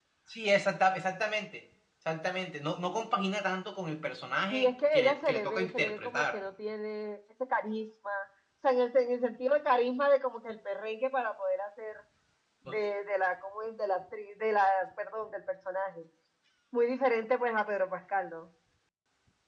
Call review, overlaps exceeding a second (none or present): present